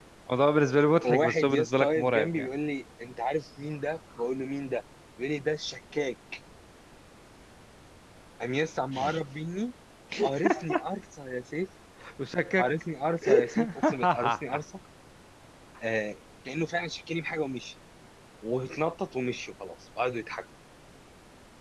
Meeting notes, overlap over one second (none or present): present